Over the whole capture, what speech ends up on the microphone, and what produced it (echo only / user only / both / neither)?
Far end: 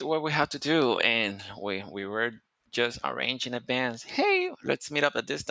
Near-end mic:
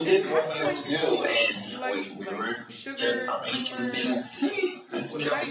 both